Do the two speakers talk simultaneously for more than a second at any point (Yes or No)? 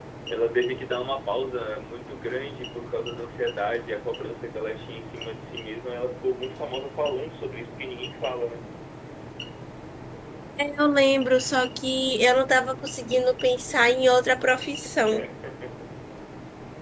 No